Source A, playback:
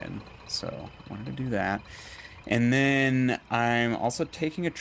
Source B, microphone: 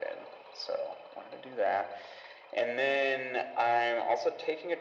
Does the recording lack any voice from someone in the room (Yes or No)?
Yes